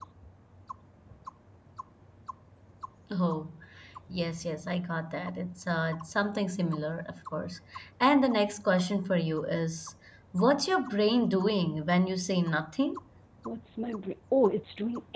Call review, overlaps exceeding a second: none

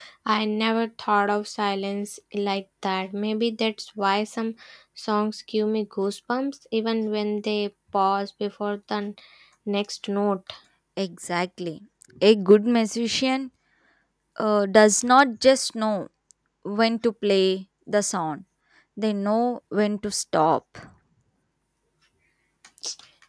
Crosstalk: none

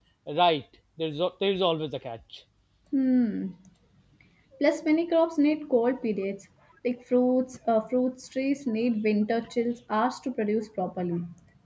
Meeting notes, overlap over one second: none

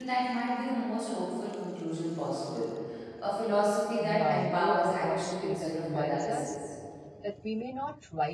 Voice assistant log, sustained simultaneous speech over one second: present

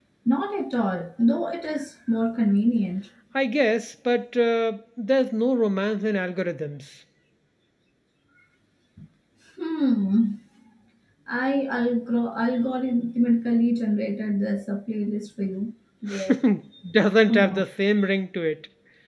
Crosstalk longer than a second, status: none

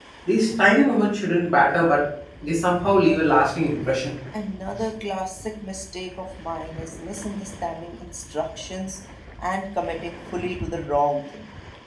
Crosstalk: none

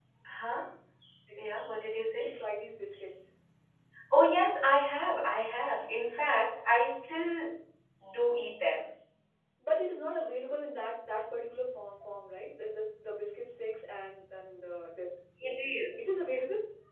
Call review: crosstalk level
none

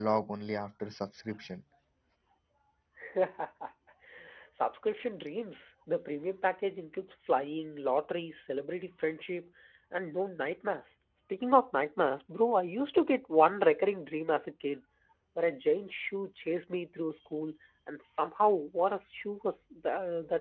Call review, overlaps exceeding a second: none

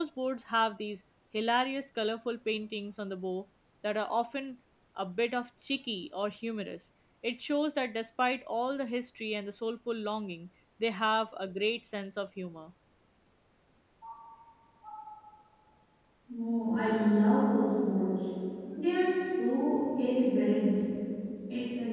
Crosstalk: none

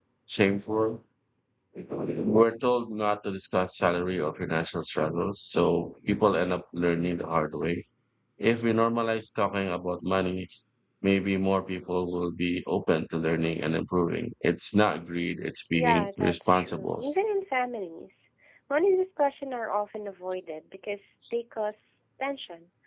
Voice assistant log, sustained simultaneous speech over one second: present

